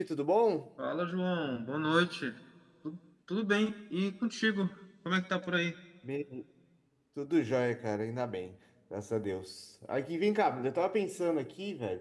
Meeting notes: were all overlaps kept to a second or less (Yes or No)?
Yes